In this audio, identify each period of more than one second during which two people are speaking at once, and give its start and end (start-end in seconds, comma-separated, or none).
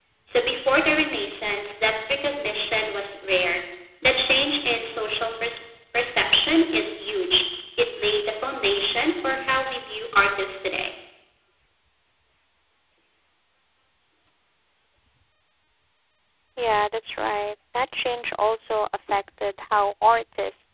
none